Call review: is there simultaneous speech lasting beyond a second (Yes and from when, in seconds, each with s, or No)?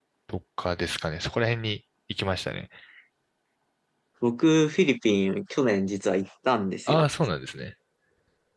No